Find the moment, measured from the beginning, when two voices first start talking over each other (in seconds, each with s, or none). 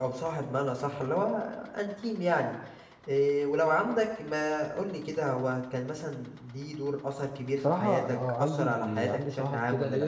7.6 s